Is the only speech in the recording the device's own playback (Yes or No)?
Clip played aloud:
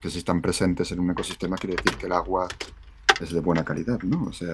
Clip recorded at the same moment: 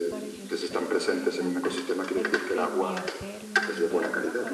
No